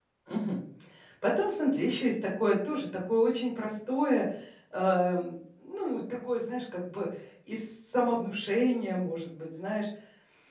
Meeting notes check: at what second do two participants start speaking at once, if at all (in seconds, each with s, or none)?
none